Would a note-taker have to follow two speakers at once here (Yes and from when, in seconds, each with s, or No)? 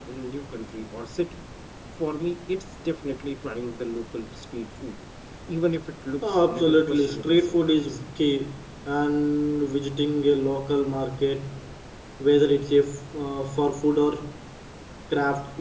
Yes, from 6.2 s